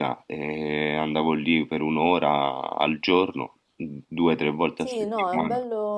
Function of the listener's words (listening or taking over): taking over